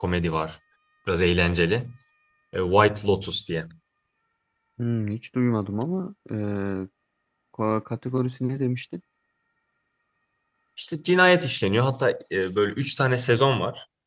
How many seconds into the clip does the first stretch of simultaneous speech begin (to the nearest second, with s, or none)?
none